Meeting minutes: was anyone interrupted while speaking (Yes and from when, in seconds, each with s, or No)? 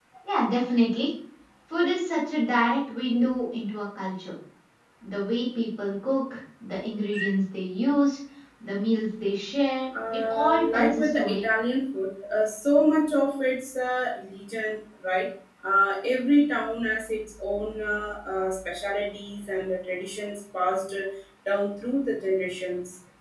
Yes, from 9.9 s